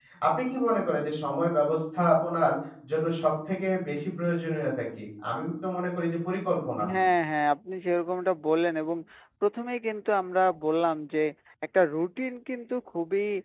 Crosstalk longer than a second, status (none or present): none